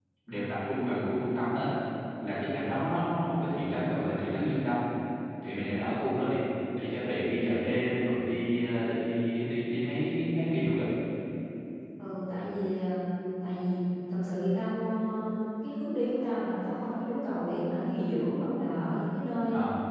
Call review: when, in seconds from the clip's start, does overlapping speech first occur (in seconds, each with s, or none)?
none